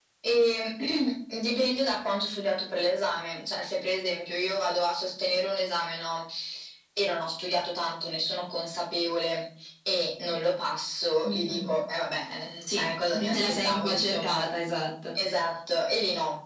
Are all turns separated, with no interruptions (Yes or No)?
No